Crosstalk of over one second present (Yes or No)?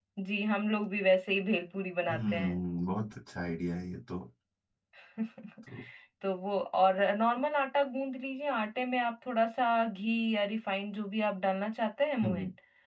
No